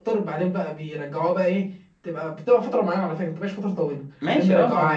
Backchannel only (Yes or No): No